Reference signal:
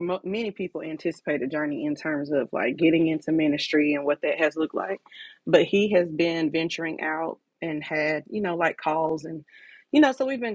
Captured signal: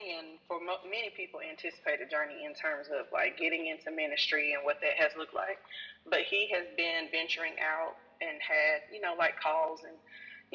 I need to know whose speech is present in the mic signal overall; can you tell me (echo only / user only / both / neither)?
echo only